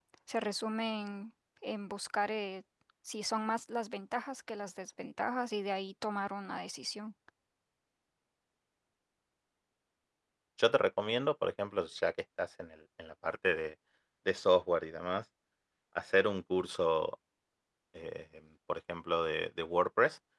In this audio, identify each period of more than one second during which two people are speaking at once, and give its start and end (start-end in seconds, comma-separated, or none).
none